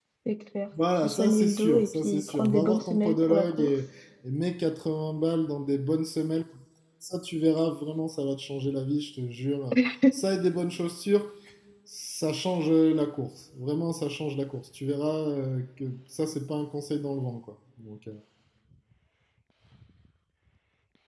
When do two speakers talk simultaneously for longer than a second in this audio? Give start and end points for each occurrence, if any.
1.0-3.7

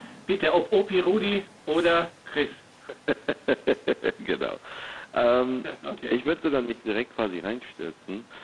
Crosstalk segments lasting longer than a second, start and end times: none

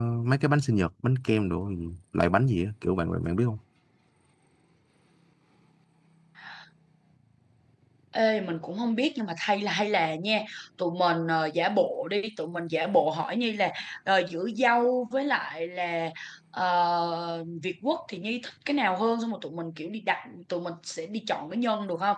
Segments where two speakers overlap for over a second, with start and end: none

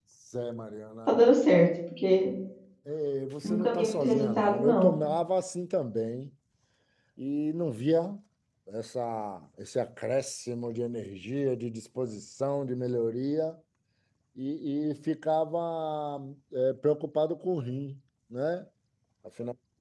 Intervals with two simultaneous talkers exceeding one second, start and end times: 3.4-4.9

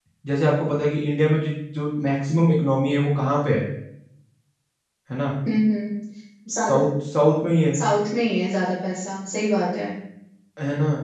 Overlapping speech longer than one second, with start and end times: none

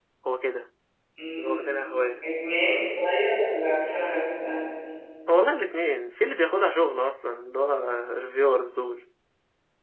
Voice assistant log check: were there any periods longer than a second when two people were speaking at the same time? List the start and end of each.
none

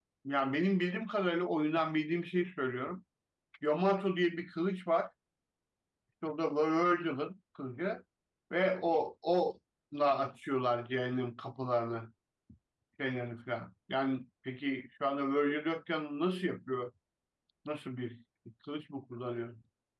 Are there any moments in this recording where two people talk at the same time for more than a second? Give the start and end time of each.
none

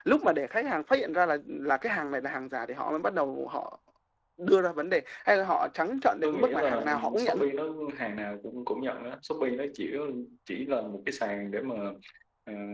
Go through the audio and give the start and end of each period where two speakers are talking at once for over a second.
6.2-7.5

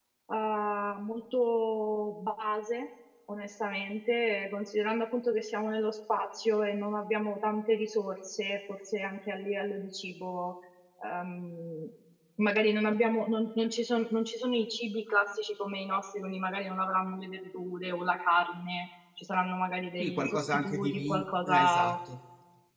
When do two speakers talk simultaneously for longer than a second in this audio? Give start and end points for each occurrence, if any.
20.0-21.9

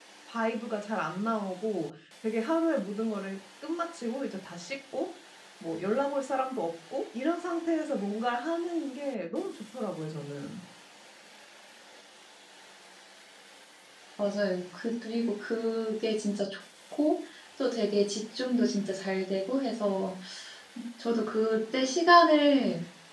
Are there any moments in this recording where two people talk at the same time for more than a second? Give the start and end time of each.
none

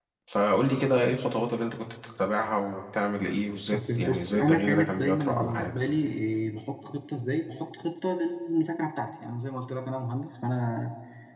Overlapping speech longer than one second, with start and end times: 3.7-5.8

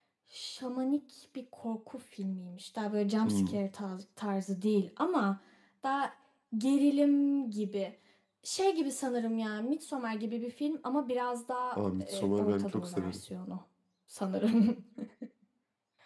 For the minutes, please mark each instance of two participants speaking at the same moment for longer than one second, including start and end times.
11.8-13.2

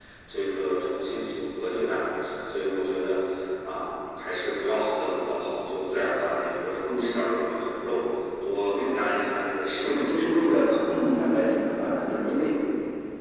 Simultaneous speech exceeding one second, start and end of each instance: none

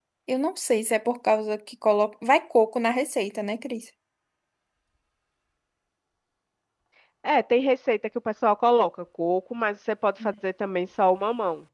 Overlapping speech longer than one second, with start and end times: none

